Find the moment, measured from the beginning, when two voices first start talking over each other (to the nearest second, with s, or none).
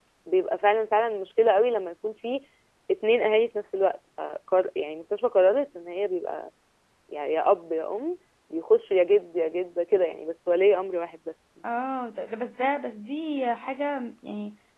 none